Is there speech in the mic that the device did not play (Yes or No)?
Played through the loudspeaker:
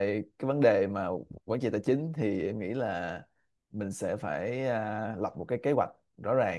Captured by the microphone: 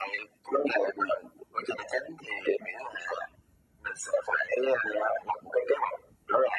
No